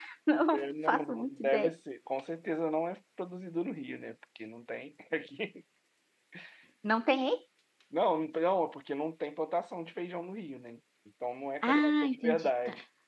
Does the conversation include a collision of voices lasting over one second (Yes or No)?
Yes